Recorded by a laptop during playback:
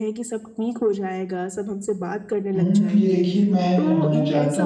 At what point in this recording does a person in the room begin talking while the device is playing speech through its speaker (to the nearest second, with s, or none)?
3 s